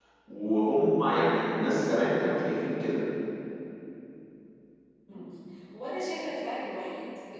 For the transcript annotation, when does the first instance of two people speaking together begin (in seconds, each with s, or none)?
none